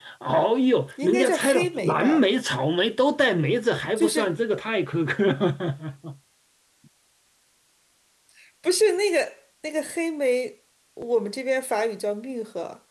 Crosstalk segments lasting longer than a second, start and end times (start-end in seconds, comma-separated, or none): 1.0-2.2